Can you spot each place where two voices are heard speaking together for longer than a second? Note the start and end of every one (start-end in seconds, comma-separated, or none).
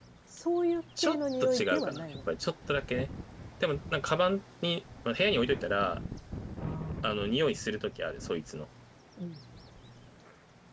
1.0-2.2